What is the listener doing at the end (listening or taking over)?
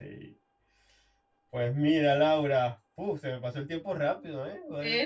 listening